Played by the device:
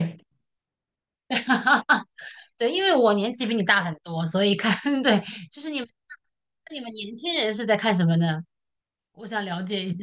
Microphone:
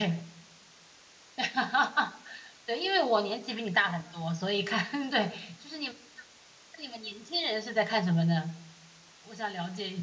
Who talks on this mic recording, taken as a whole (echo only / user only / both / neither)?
echo only